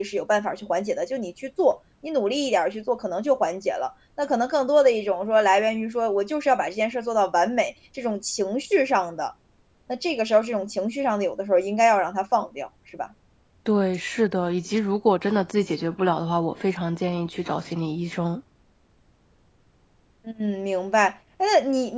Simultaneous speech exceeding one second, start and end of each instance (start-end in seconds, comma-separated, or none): none